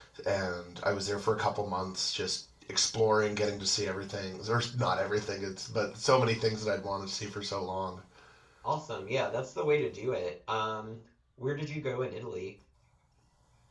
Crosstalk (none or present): none